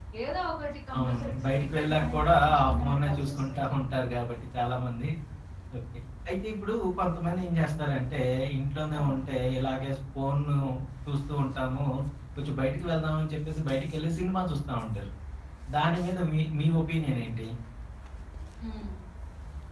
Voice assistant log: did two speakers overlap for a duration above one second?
Yes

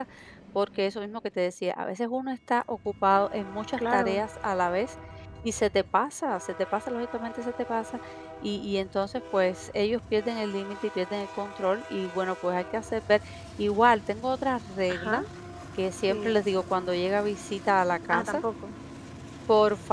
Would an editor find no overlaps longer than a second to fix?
Yes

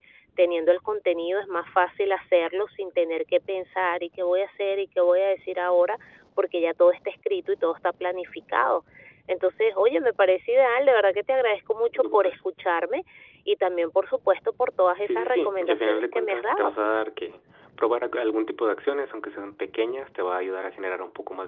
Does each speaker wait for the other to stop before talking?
No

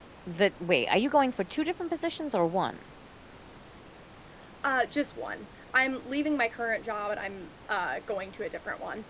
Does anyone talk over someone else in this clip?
No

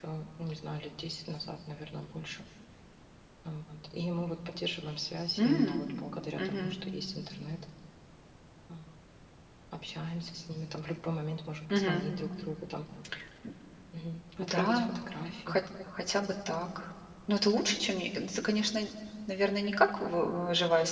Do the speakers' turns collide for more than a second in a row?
No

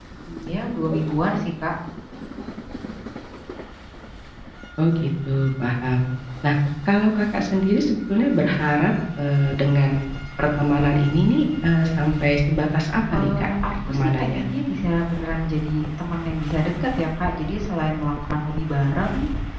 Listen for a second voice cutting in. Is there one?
Yes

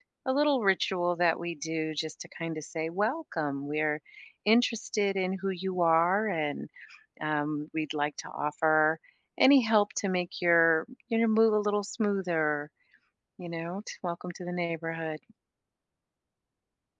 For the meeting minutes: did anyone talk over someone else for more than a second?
No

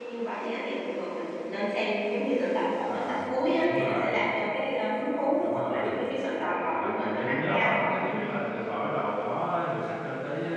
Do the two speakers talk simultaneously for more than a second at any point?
Yes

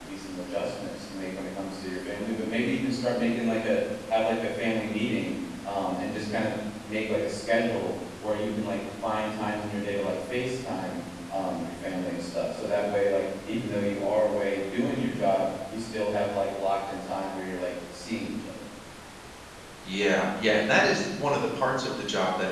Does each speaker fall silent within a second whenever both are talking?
Yes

